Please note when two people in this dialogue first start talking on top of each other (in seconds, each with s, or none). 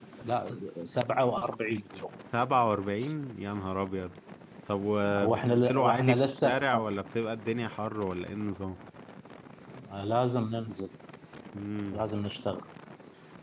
5.2 s